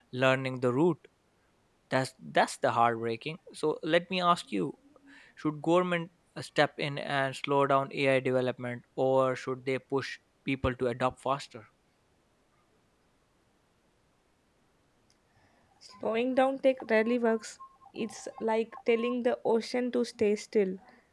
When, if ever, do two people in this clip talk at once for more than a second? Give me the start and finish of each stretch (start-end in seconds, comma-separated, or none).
none